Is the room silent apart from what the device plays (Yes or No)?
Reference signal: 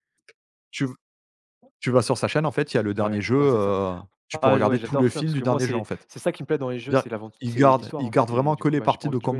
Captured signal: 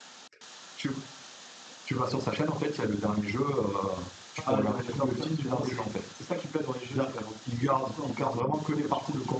Yes